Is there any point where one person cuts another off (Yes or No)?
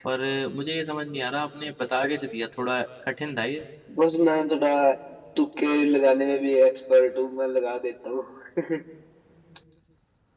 No